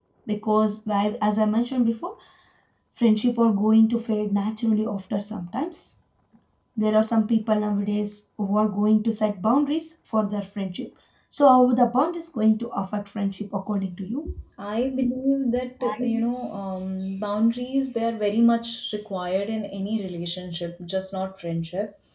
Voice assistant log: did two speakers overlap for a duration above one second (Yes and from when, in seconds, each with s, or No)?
No